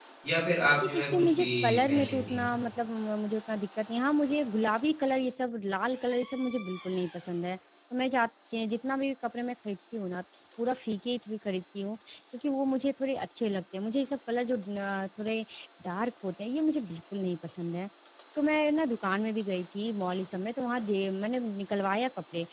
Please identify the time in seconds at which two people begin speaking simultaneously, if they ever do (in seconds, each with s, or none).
0.8 s